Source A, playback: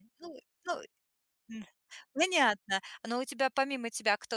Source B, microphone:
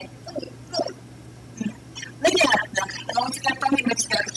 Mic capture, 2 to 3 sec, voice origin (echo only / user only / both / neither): echo only